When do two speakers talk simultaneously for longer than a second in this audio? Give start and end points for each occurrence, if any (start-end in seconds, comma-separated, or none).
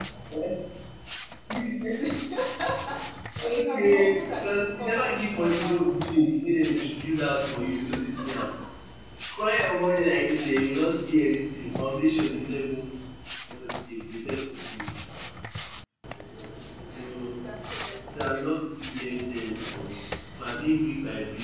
3.5-6.0